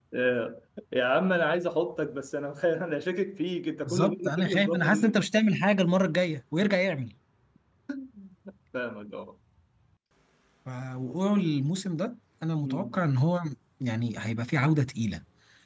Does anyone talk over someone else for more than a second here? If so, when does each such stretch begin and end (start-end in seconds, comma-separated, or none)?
3.9-5.2